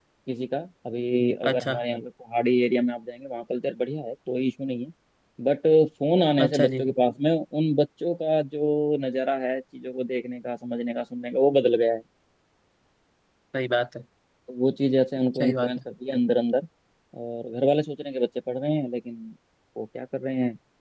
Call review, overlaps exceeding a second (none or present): none